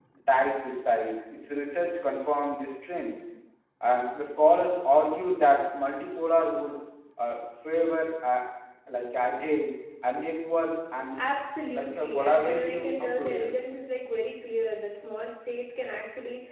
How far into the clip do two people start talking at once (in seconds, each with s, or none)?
11.7 s